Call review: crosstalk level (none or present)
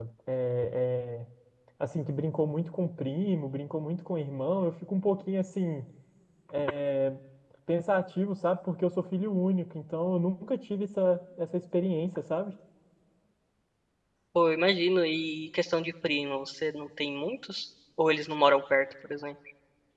none